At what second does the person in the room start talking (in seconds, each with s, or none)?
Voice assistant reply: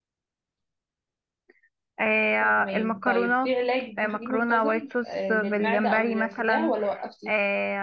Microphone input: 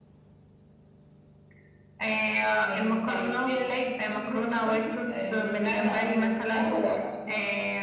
5.9 s